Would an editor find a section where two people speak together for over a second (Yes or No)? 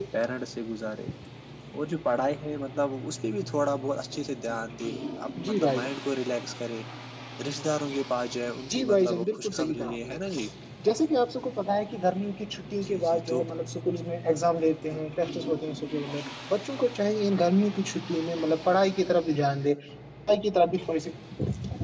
Yes